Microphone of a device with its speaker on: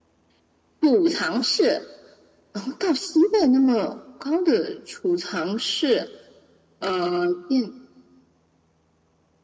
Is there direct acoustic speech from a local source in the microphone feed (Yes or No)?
No